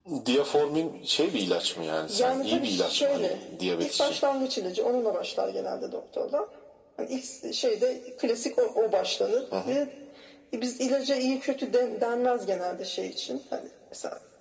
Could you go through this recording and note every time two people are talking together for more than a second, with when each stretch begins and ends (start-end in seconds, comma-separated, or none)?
2.1-3.4